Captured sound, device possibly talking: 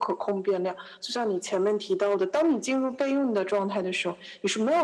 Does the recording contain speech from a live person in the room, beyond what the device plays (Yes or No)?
No